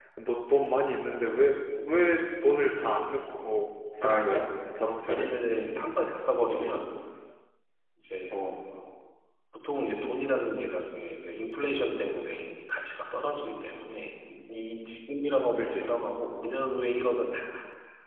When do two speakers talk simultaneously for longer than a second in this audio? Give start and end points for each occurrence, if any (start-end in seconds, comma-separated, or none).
none